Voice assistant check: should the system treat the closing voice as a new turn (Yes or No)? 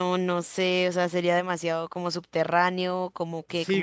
Yes